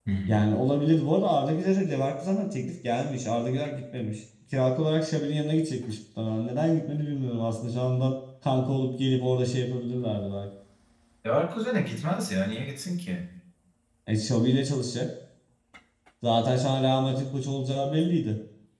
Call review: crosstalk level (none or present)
none